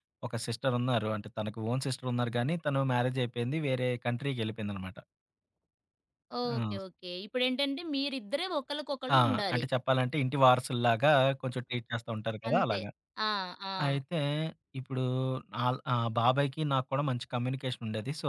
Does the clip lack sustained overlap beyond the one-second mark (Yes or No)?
Yes